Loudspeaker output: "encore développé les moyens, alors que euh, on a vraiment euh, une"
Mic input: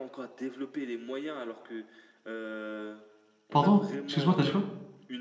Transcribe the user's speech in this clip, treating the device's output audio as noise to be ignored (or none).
Pardon? Excuse-moi, t'as dit quoi?